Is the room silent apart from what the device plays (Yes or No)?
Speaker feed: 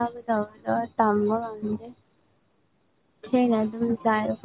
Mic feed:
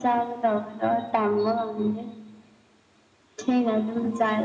Yes